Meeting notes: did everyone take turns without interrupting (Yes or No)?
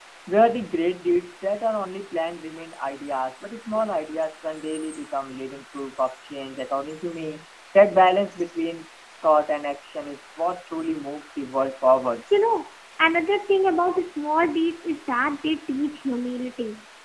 Yes